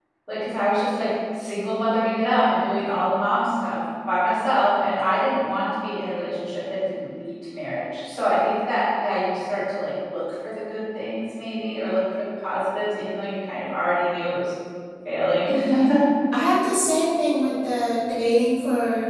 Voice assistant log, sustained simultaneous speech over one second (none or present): none